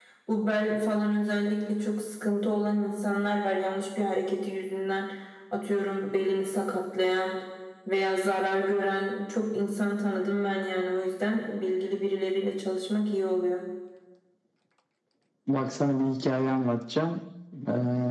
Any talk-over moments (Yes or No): No